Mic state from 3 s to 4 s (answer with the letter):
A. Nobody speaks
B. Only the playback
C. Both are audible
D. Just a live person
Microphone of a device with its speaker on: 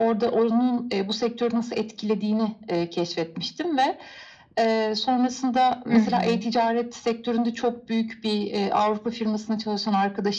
B